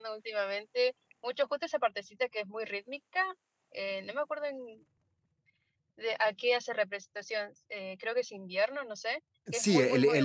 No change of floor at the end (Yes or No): No